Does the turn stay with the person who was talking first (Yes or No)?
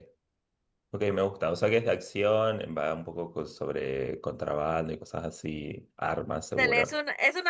No